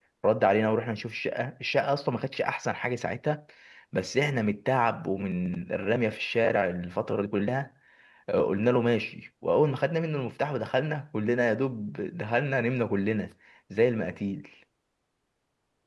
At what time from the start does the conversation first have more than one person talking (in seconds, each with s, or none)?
none